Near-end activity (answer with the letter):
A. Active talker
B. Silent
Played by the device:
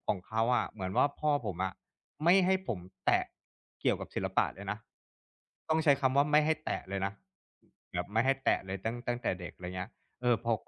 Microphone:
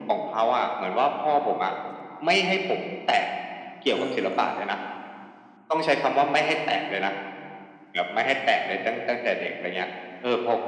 A